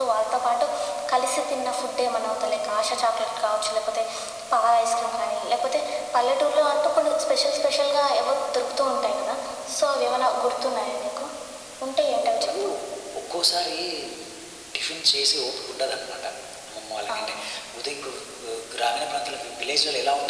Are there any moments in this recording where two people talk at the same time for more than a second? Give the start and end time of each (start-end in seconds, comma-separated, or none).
none